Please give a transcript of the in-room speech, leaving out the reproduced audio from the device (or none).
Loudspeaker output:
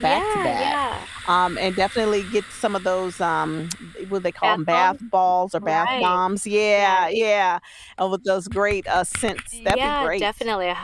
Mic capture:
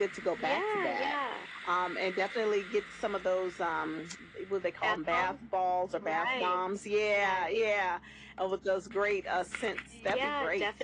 none